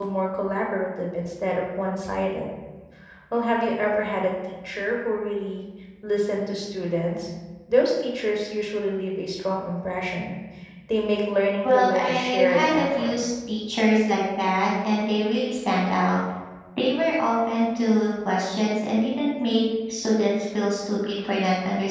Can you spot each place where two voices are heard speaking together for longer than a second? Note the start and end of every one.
11.6-13.1

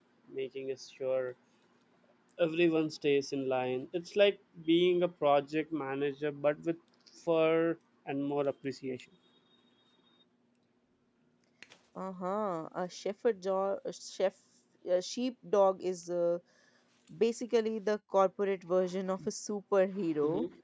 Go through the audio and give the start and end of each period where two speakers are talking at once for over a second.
none

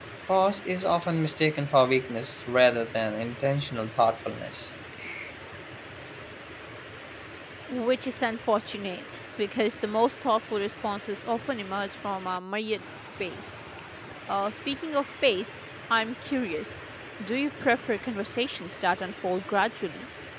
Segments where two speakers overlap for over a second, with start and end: none

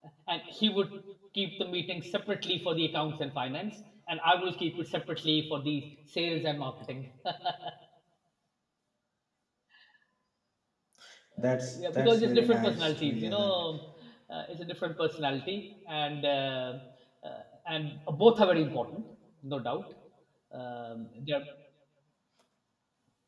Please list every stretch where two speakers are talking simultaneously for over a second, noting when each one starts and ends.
11.7-13.5

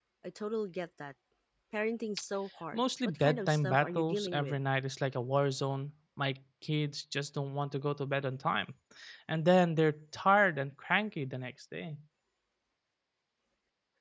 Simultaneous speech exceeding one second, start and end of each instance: 2.7-4.6

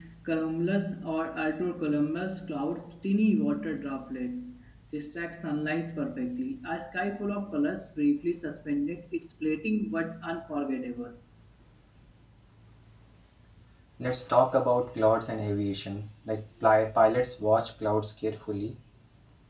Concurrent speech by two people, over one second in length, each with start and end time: none

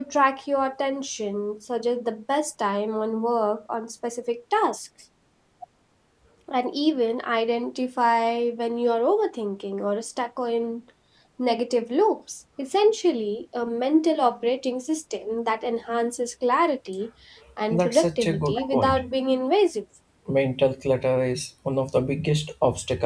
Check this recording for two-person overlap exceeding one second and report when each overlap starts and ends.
17.7-19.0

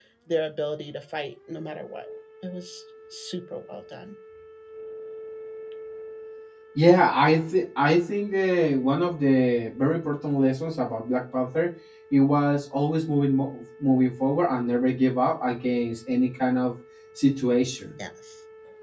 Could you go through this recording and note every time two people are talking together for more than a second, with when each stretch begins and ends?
none

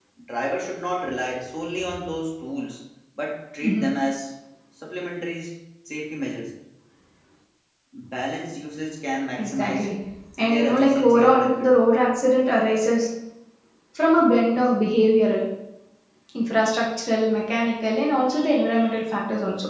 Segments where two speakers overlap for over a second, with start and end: 10.4-11.7

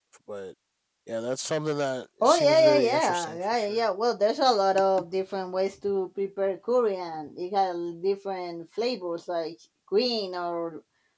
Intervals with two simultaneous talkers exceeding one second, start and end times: 2.2-3.9

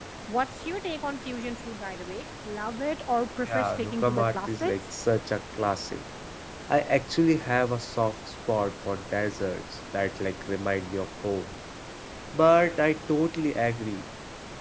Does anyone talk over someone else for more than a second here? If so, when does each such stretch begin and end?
3.4-4.7

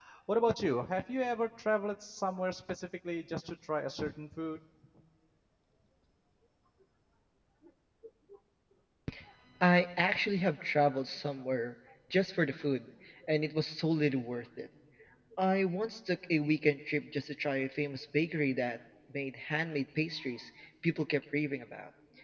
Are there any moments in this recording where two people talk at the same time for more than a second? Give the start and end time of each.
none

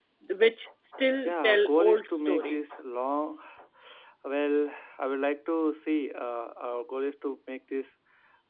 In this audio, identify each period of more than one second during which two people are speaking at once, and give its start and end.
1.2-2.8

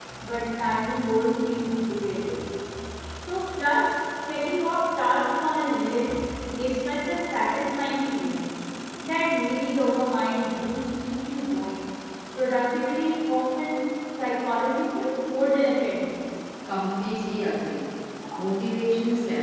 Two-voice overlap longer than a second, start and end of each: none

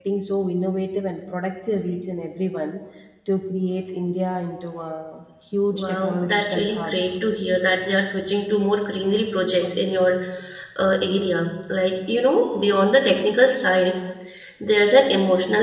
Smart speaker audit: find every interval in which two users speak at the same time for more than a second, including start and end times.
5.7-7.0

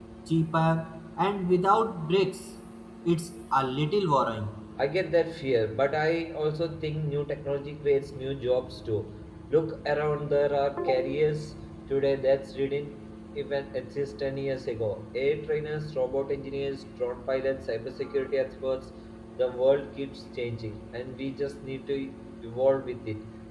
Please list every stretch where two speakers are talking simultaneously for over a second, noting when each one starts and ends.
none

